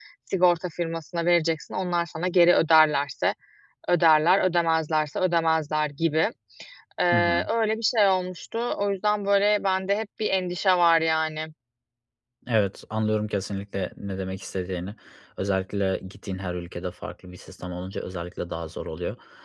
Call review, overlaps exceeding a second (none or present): none